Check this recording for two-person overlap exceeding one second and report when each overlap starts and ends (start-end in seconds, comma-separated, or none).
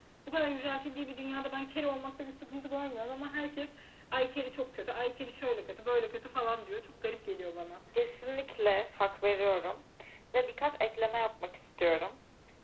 none